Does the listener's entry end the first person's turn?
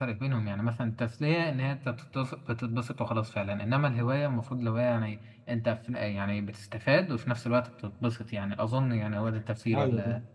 Yes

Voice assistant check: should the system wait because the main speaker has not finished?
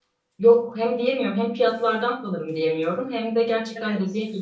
Yes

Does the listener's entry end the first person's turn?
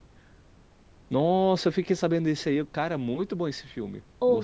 Yes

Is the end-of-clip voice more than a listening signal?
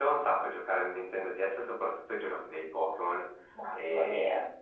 No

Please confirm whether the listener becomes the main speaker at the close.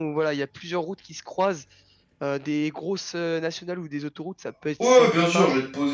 Yes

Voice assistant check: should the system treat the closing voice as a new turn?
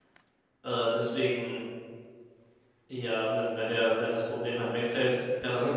Yes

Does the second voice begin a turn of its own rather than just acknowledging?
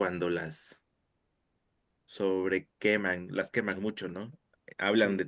No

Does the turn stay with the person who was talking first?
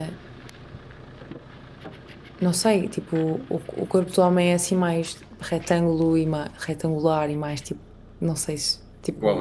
No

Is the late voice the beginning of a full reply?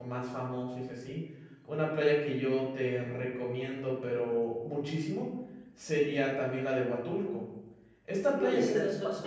Yes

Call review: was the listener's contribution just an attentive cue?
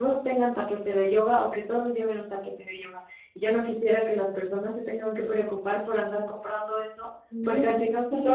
Yes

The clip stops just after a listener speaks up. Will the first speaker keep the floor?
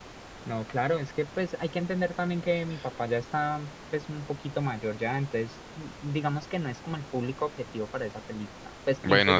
No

